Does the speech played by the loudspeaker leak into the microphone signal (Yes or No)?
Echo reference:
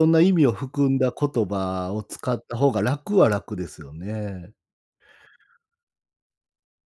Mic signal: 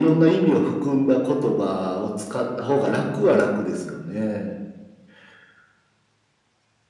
Yes